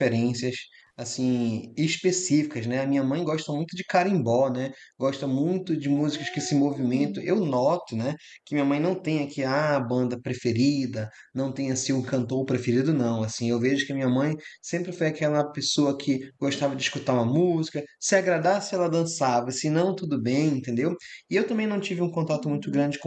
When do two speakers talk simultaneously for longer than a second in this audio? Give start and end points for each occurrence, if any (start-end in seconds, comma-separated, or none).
6.0-7.3